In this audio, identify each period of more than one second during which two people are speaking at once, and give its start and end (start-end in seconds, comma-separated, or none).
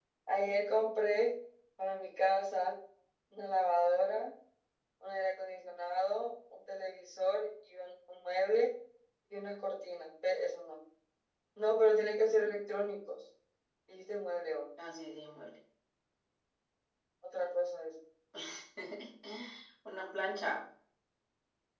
none